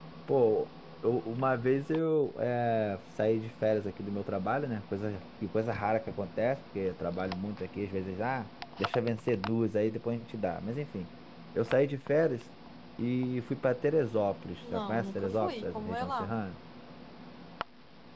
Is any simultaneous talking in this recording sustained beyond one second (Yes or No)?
Yes